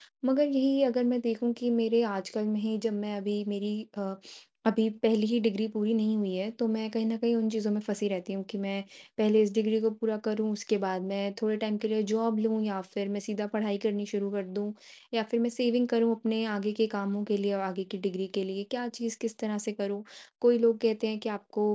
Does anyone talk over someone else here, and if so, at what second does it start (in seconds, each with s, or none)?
none